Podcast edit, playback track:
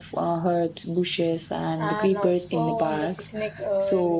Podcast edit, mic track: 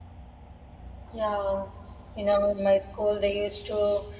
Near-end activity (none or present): present